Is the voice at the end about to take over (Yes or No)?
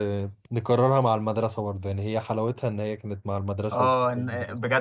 Yes